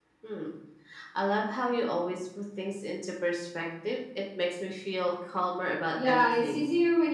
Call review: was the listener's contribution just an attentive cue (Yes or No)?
No